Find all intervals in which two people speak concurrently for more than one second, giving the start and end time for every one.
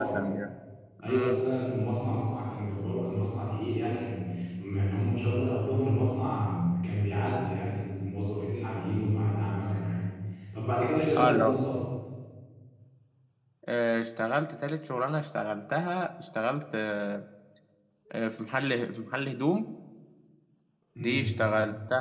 none

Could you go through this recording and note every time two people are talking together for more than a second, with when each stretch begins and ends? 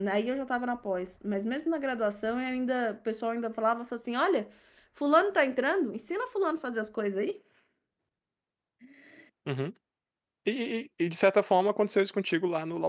none

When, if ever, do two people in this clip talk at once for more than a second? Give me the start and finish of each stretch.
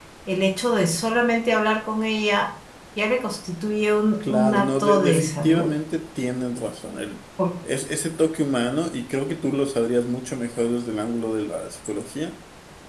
4.2-5.7

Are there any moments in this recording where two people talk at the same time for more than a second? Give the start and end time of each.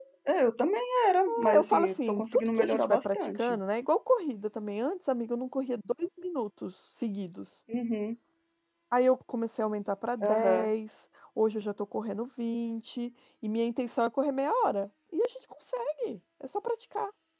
1.5-3.6

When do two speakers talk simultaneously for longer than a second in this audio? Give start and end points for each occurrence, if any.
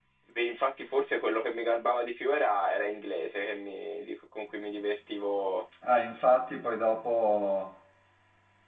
none

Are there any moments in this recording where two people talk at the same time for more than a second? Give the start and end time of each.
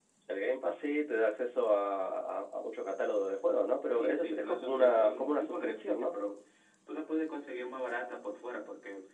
4.0-6.1

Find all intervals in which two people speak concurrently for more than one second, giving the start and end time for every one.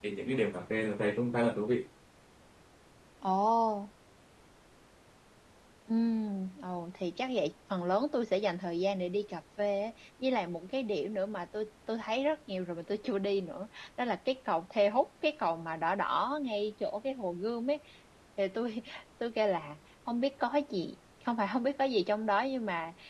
none

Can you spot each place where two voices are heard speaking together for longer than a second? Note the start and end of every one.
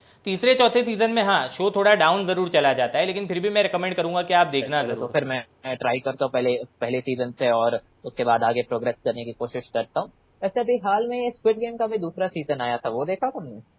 none

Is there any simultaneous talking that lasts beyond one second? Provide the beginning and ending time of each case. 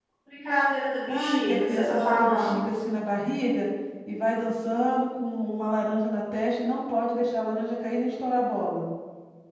1.1-2.6

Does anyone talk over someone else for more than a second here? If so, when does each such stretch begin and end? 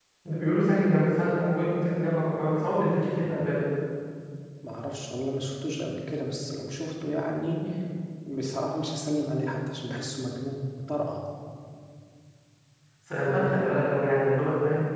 none

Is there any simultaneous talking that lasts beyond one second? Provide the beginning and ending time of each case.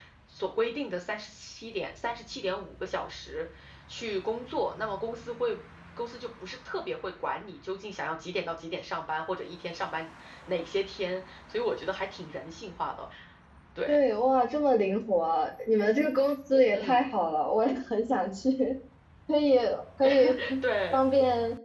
none

